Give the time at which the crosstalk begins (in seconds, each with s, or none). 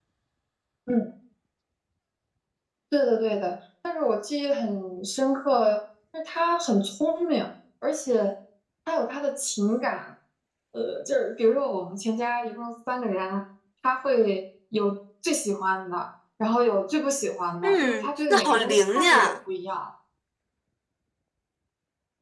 17.6 s